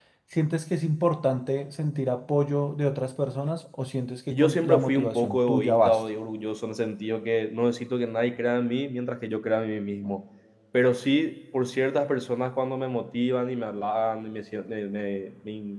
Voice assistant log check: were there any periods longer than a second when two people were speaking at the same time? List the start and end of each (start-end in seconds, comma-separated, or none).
4.3-6.0